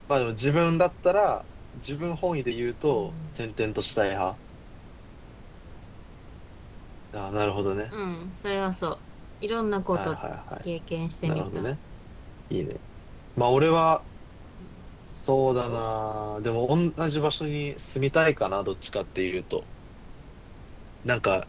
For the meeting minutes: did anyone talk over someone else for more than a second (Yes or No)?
No